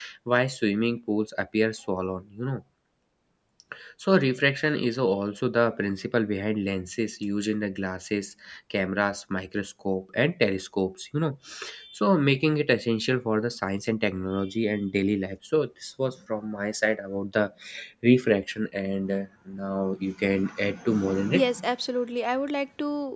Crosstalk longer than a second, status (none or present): none